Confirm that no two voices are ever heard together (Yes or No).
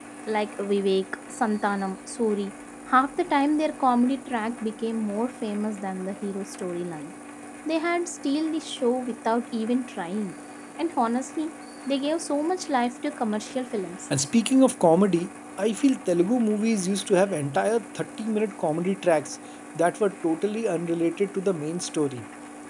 Yes